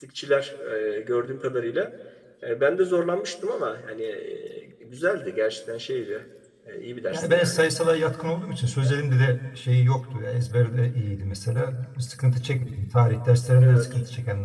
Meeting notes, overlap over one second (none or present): none